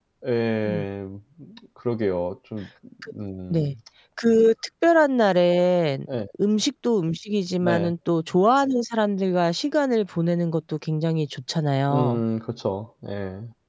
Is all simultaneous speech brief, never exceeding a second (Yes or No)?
Yes